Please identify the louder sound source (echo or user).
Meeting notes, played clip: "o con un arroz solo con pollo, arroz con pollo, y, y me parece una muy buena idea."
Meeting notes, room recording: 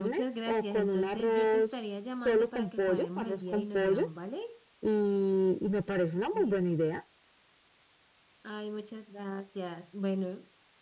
echo